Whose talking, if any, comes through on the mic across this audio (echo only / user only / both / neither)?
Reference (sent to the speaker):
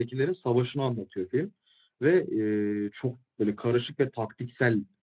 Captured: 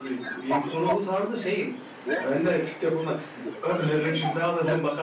both